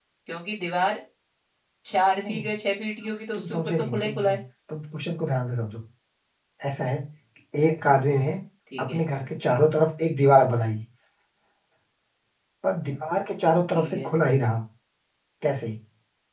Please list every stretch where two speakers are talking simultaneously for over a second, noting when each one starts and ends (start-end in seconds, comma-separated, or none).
3.0-4.3